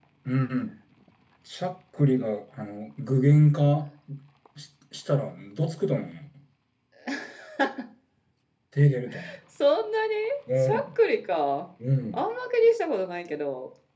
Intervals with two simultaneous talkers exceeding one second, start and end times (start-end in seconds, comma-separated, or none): none